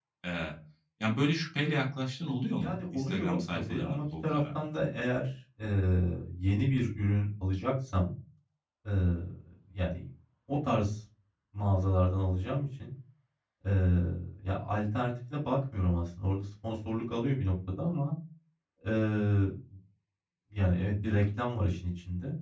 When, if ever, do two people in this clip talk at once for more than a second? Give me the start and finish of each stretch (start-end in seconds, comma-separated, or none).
2.5-4.6